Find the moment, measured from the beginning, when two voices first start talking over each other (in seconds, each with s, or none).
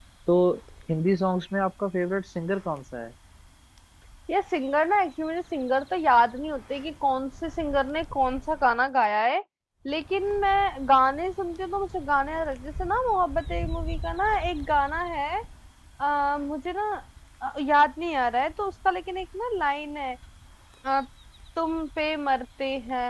none